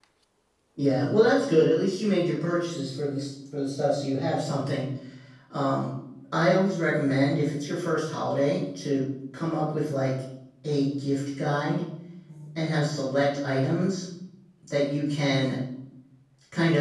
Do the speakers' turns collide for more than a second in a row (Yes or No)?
No